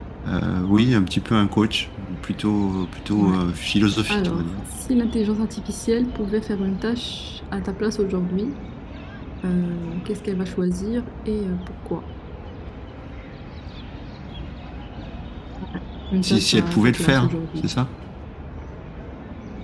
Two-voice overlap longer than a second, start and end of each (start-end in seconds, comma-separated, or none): 16.2-17.6